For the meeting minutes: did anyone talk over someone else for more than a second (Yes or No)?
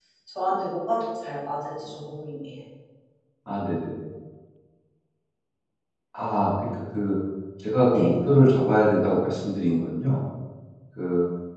No